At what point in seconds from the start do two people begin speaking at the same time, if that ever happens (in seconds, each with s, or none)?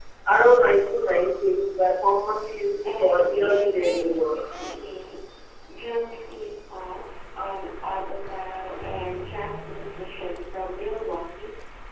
2.8 s